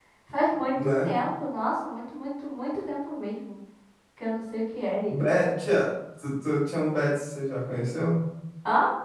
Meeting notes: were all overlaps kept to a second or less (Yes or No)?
Yes